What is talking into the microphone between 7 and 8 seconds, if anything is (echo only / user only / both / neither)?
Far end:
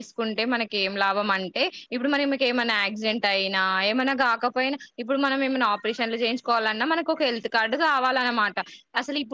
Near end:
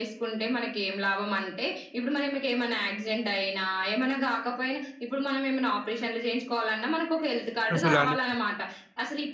both